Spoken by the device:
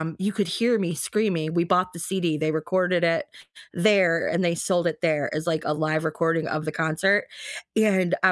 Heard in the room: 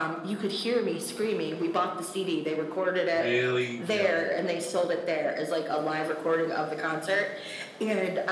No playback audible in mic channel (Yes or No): No